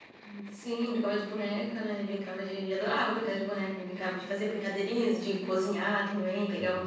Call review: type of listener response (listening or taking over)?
listening